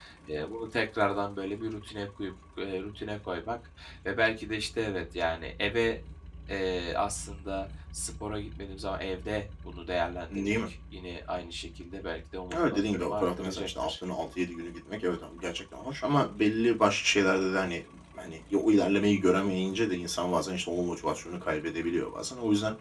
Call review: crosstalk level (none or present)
present